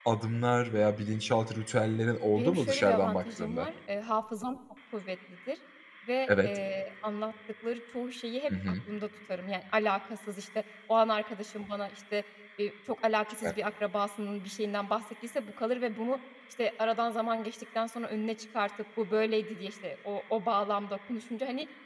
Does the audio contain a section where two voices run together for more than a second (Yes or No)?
Yes